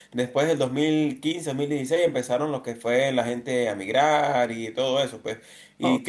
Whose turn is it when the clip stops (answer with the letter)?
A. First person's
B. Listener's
B